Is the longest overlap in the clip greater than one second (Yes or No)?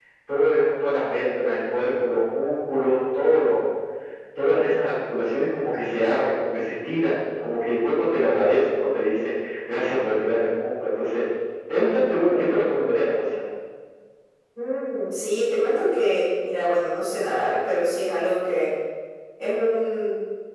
No